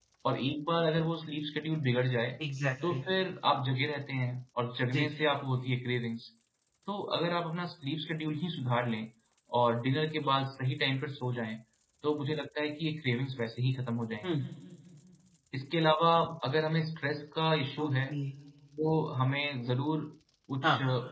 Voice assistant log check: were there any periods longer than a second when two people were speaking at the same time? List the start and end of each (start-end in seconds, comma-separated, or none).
none